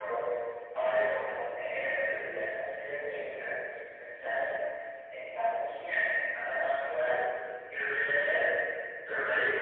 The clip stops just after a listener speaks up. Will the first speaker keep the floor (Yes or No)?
Yes